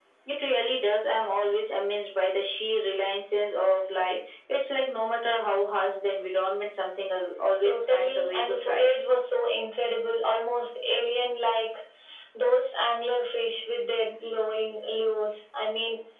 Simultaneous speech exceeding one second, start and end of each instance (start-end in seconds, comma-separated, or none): 7.6-8.9